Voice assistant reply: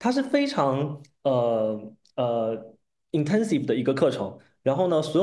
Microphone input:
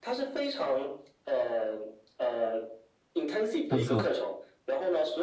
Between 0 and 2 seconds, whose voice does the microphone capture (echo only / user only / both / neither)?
echo only